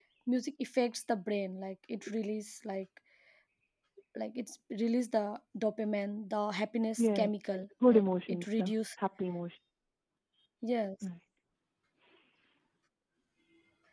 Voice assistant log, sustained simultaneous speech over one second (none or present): present